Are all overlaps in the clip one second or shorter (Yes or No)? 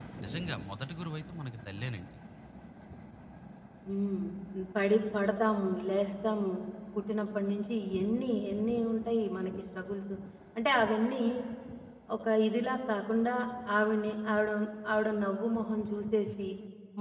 Yes